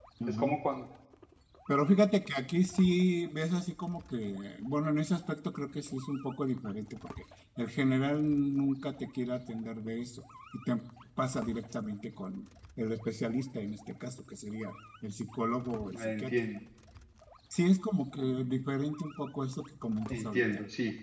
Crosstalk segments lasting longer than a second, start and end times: none

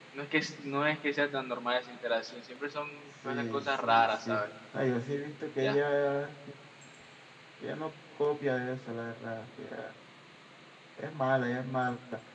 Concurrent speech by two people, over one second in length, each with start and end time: 3.2-4.5

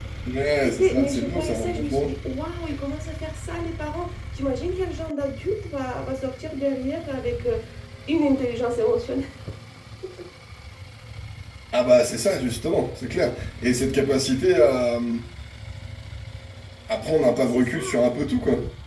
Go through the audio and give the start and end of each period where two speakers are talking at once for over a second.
0.6-2.1

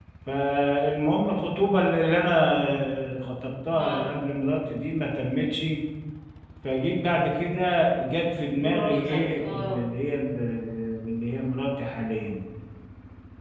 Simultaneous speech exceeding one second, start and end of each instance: 8.6-9.8

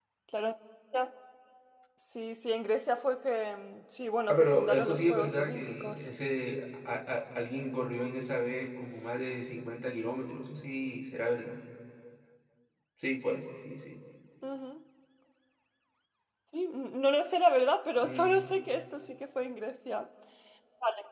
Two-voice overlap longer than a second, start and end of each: 4.3-6.1

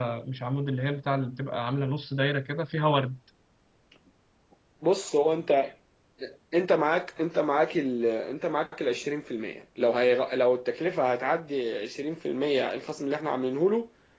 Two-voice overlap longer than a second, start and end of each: none

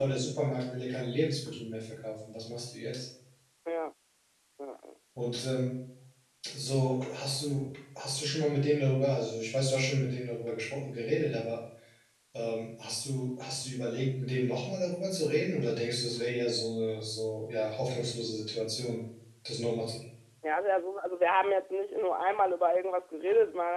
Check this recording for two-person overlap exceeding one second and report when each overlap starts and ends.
none

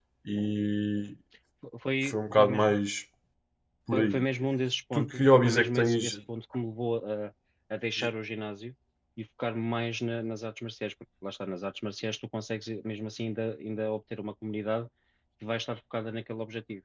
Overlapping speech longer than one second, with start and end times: 4.9-6.2

